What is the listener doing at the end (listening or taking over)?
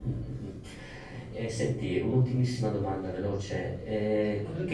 listening